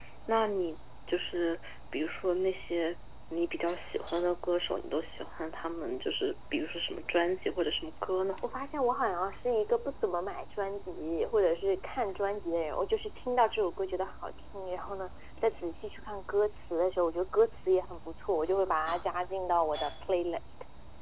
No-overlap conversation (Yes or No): Yes